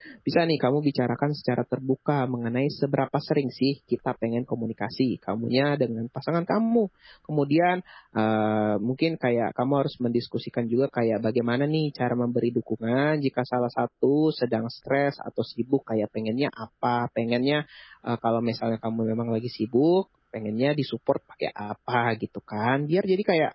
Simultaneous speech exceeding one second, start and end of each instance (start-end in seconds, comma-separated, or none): none